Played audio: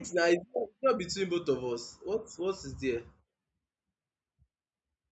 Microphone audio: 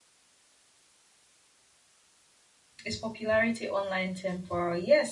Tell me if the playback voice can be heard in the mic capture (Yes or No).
No